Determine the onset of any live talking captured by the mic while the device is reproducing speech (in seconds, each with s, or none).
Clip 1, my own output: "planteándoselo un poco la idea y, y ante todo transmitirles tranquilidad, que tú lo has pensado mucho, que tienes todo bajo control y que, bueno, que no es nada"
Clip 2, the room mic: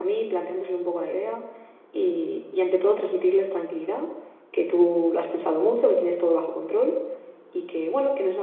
none